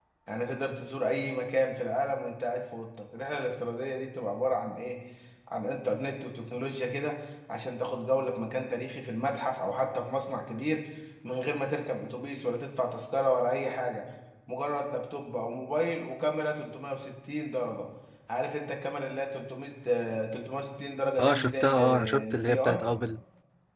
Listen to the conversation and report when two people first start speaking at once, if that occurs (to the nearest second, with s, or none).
21 s